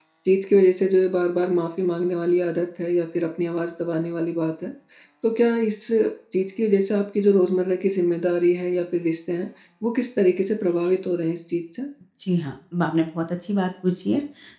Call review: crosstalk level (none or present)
none